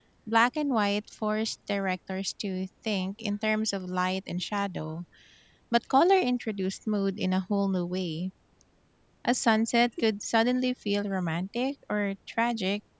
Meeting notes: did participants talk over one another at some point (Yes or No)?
No